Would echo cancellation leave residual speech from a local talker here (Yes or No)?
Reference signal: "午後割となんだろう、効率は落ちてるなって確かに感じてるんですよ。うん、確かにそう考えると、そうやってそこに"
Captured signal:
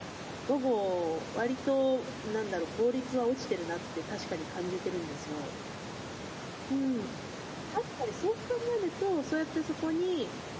No